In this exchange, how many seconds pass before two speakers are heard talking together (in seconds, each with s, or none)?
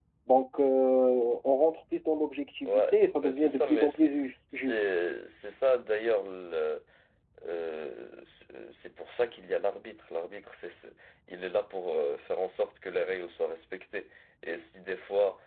2.6 s